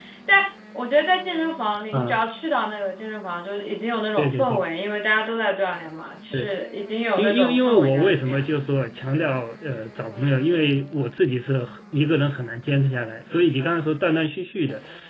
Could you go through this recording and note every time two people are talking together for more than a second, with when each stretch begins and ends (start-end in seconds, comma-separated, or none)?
7.2-8.4